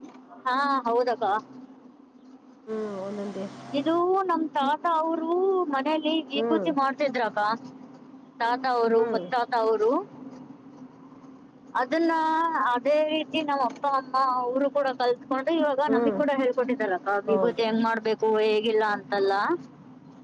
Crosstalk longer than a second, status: none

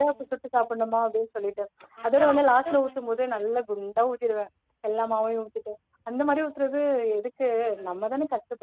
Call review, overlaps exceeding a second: present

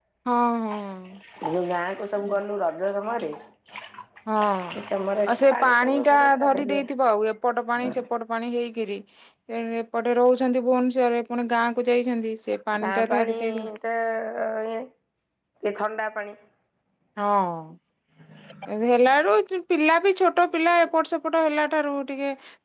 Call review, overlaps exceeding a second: present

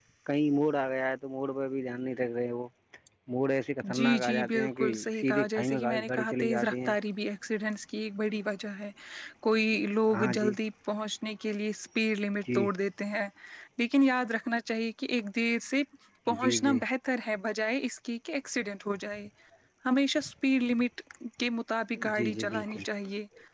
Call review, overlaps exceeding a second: present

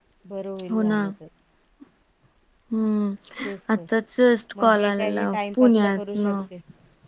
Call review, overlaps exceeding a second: present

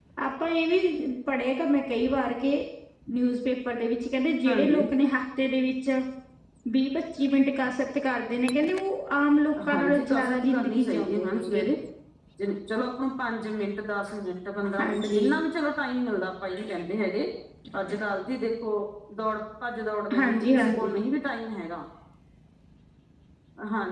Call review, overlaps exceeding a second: present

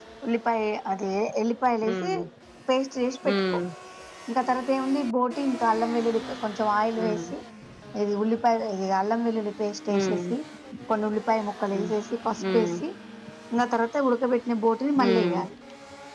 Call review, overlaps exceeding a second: none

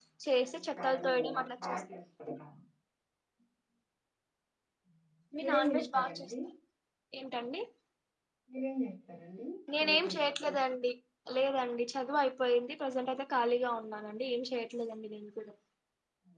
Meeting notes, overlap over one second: present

